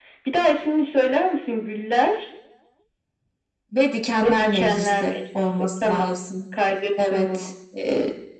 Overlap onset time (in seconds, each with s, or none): 4.2 s